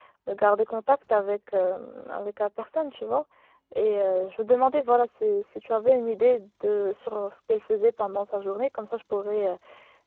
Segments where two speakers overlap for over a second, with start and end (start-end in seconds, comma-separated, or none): none